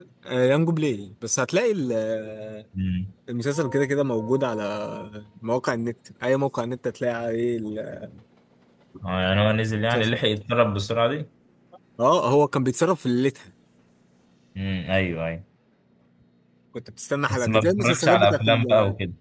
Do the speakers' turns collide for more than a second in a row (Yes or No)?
Yes